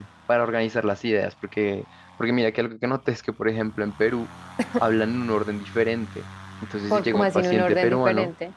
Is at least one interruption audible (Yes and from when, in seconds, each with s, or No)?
Yes, from 6.9 s